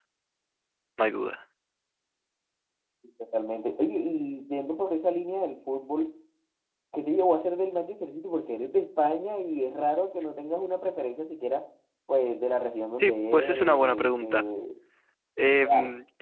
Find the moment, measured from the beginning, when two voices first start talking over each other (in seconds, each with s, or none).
12.9 s